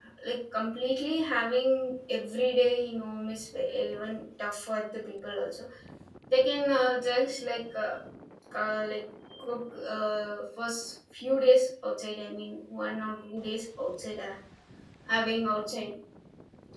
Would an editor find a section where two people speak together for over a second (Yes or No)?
No